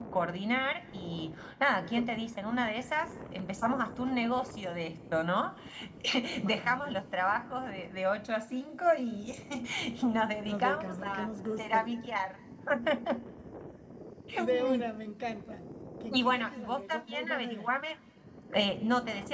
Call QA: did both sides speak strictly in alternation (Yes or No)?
No